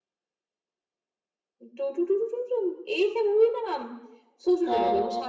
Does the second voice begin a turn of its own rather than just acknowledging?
No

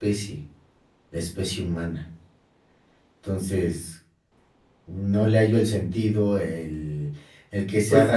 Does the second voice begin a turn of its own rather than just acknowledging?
No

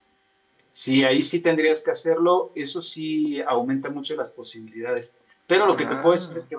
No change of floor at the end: Yes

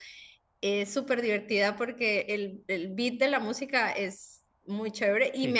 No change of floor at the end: Yes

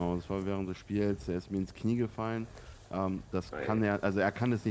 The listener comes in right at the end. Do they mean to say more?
No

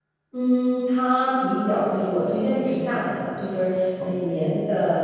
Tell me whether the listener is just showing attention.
Yes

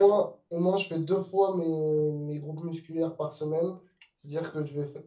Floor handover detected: No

